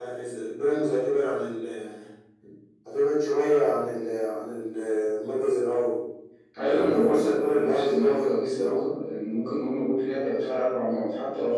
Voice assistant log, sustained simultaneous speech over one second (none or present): present